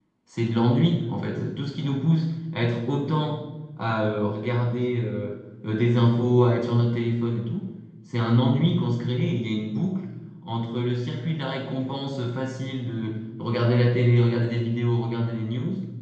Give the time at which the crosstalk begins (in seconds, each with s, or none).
none